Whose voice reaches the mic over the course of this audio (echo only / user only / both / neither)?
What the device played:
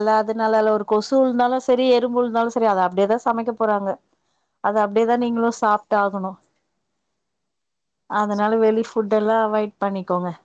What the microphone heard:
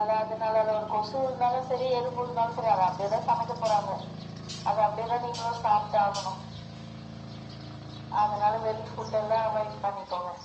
echo only